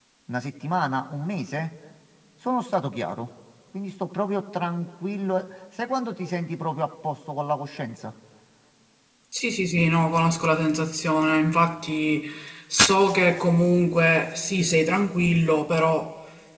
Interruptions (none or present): none